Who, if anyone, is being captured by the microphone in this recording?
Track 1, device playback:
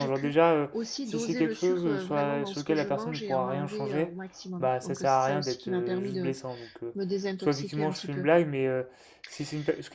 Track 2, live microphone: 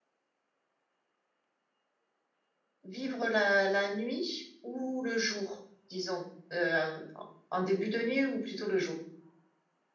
user only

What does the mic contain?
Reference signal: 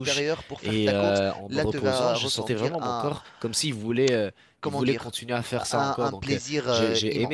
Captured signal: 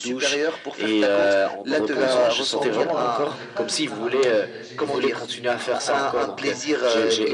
both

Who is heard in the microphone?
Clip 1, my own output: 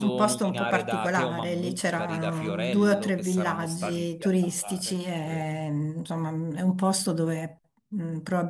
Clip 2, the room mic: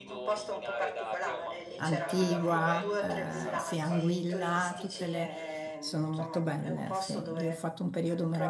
both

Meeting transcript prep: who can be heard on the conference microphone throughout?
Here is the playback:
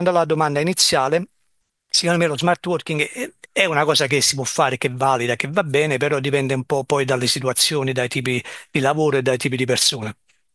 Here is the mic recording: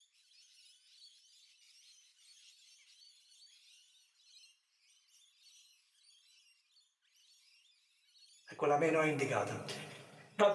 user only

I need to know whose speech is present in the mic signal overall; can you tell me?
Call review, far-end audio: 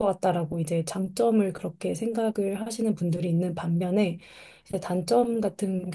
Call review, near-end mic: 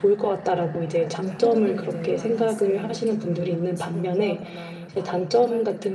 both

